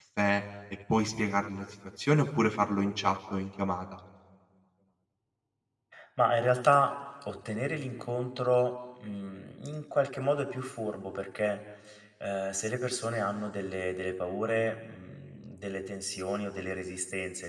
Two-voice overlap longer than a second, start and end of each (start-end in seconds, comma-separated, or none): none